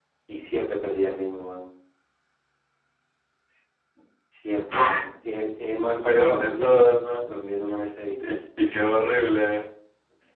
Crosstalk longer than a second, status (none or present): present